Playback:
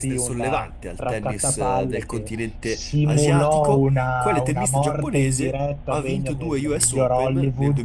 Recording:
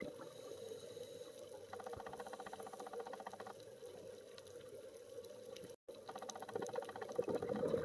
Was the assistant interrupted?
No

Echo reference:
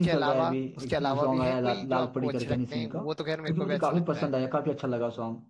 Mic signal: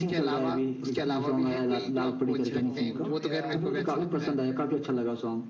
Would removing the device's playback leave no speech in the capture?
No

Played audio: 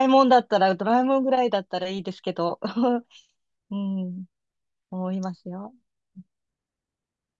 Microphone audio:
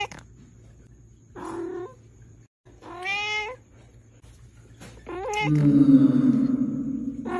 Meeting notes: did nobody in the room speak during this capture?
No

